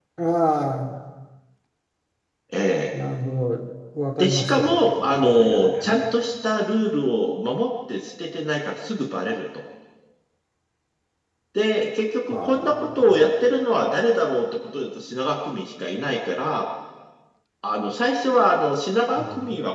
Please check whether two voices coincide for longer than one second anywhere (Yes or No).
Yes